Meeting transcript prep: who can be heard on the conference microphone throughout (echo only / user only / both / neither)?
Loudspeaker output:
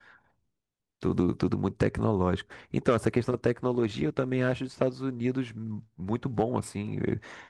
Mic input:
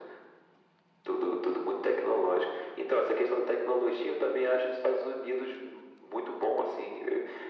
echo only